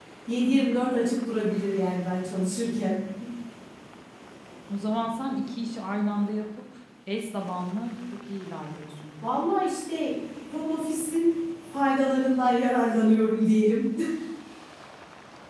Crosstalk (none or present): none